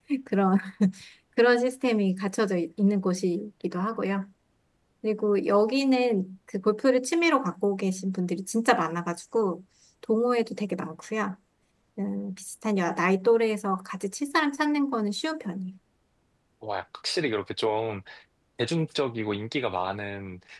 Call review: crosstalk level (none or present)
none